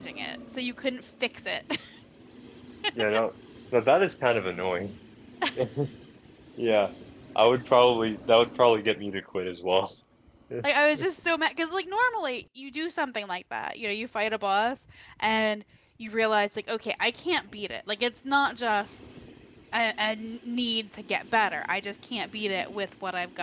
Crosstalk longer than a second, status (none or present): none